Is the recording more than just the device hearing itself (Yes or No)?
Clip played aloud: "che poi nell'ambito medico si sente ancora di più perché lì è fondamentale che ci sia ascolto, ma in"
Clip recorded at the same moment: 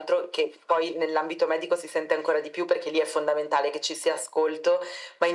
No